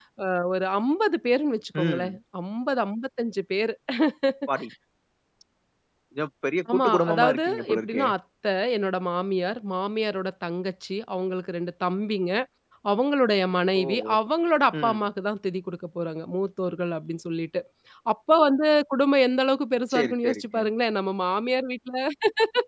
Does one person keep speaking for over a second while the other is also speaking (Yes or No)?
Yes